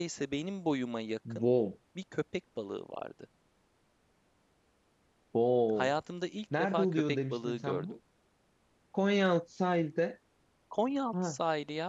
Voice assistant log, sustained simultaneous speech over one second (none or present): present